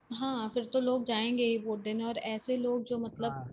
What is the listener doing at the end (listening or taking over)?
listening